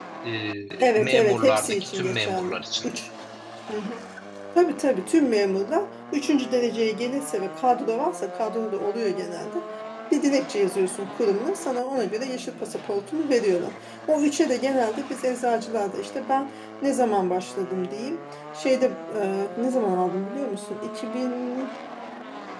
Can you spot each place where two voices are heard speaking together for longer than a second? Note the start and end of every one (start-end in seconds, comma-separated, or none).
1.0-2.6